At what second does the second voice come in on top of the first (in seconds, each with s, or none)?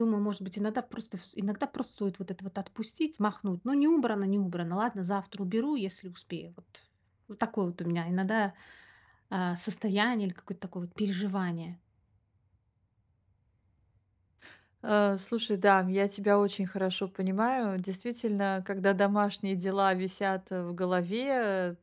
none